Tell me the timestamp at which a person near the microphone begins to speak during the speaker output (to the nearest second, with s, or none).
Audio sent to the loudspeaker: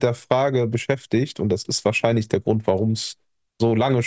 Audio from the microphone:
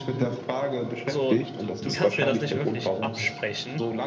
1 s